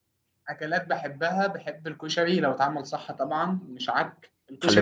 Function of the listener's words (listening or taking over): taking over